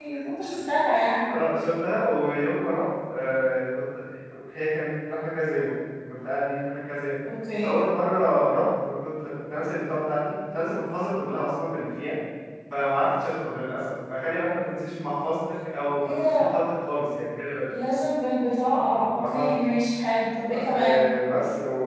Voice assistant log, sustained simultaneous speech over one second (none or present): none